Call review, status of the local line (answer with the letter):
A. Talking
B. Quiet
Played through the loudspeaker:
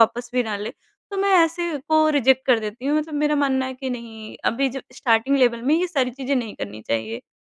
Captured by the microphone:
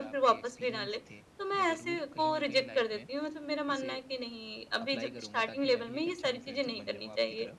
A